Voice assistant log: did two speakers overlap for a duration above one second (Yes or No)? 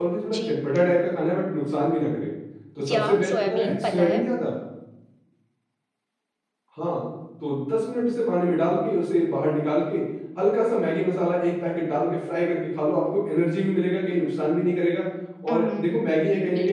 Yes